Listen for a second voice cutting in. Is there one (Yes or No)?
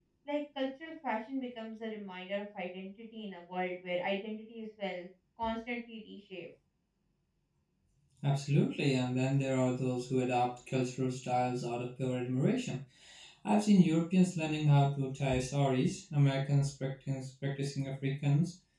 No